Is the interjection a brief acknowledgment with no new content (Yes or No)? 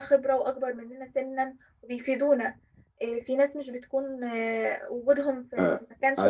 No